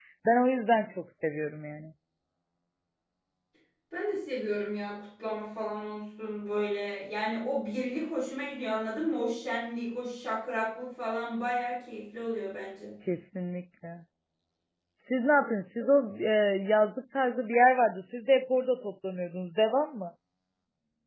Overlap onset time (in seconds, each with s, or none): none